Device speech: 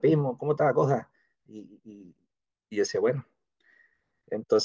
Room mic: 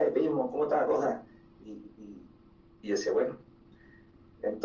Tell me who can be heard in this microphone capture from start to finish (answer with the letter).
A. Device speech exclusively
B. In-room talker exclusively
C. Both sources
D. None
A